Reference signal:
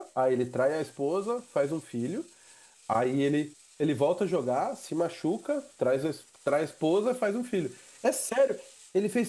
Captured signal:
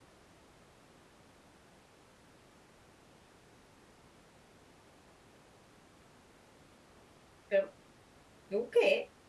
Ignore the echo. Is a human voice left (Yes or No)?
Yes